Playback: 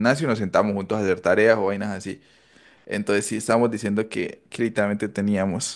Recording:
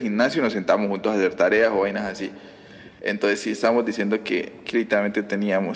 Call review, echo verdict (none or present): present